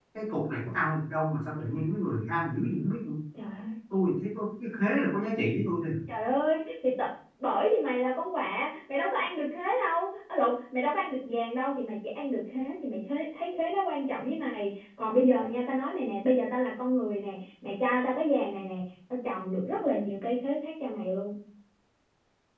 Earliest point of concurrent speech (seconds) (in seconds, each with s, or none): none